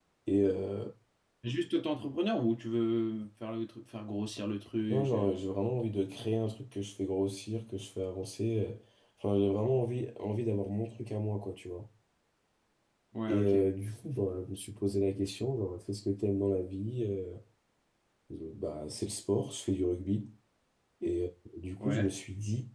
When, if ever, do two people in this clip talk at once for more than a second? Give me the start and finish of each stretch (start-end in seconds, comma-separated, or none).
none